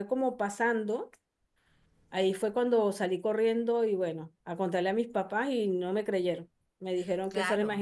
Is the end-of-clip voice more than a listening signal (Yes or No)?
Yes